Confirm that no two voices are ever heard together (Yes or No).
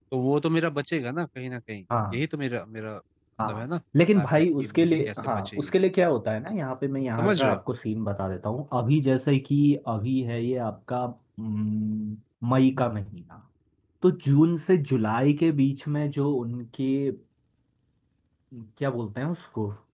No